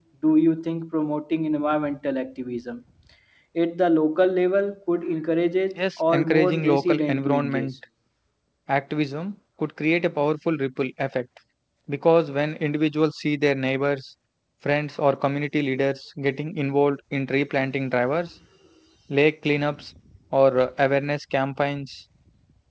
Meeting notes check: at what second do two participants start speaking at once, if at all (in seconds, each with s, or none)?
6.0 s